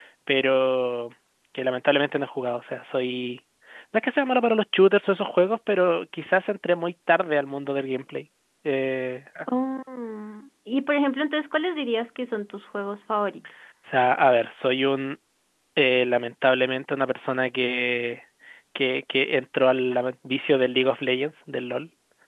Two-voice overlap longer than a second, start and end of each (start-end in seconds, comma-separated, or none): none